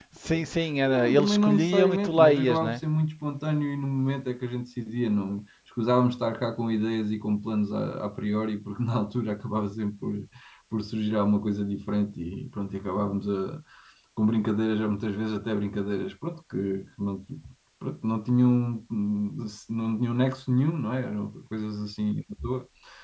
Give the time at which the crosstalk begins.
1 s

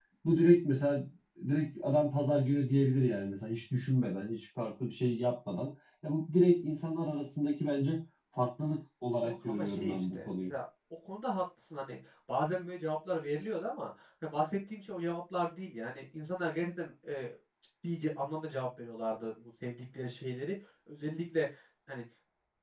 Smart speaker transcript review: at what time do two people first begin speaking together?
9 s

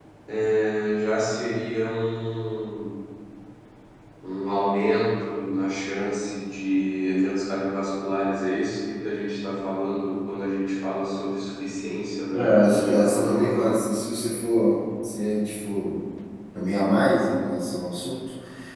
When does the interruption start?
12 s

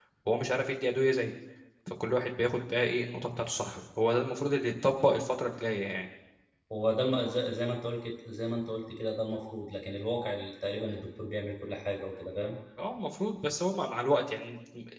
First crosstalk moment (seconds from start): none

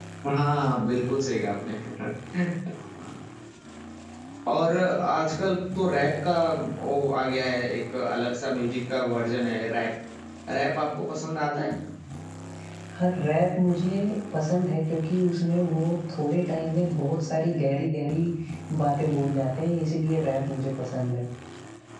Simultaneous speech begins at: none

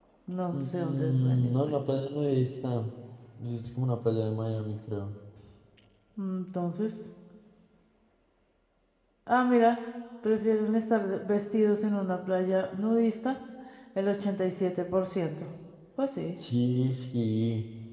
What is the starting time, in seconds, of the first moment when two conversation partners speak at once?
1 s

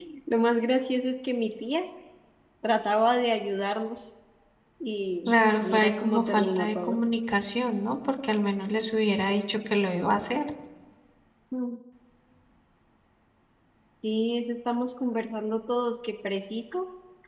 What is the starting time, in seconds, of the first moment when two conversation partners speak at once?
6 s

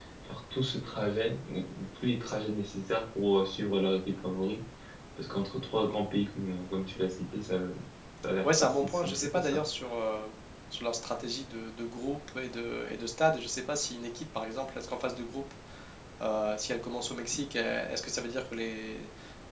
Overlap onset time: 8 s

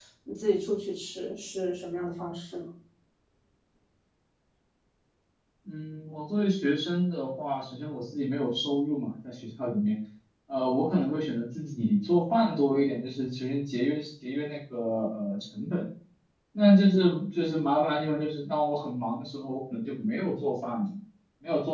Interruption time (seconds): none

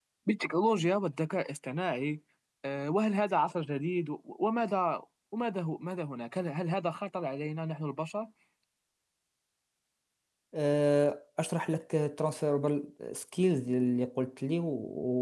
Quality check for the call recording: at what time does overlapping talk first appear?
none

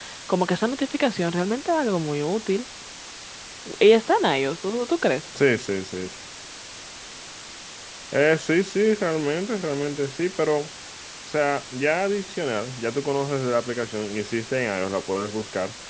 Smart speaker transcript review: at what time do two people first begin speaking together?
none

